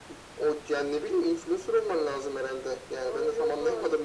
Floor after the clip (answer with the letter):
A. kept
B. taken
B